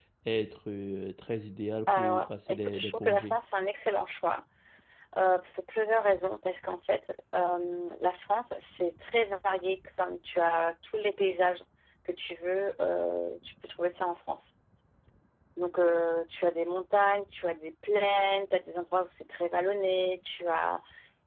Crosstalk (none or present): present